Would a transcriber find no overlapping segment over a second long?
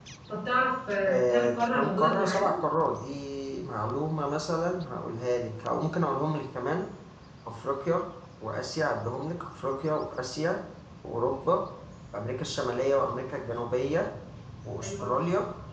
No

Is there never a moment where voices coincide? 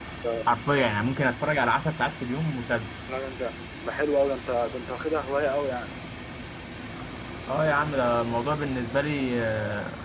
Yes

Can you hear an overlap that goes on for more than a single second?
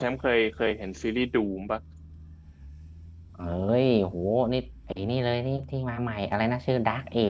No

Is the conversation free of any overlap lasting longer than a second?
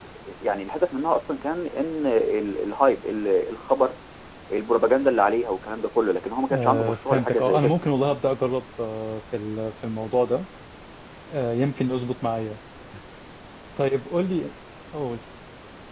No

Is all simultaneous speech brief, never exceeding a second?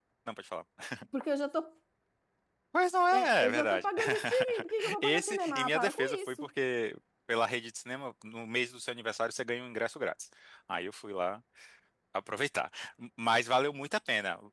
No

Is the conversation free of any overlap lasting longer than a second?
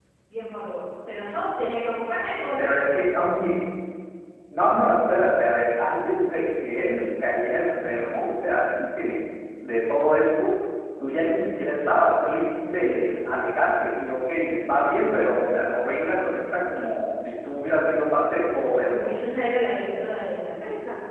Yes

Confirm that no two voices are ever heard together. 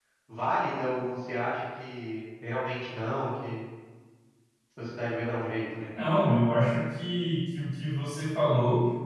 Yes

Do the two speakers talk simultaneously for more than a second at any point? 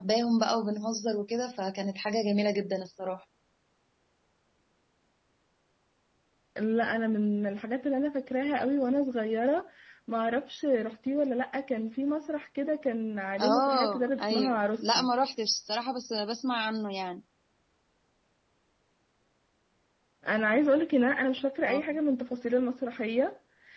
Yes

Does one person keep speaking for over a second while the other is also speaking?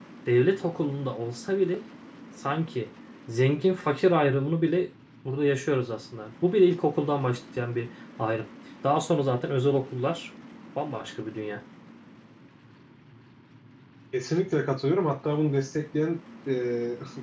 No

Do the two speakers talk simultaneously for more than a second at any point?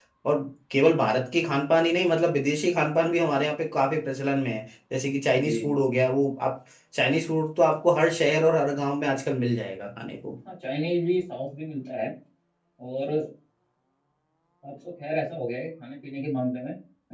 No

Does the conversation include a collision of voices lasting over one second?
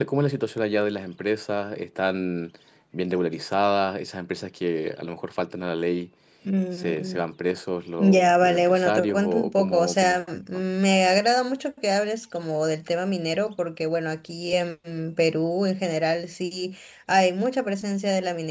Yes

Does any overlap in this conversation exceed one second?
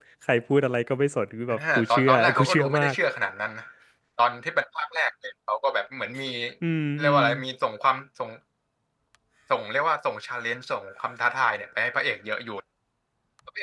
Yes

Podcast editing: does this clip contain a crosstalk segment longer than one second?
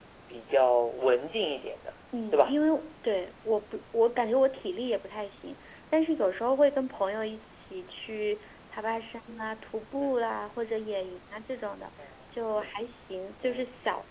No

